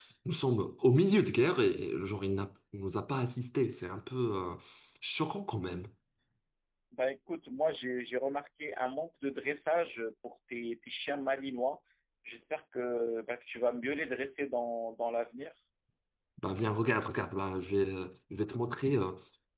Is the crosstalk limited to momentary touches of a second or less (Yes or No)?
Yes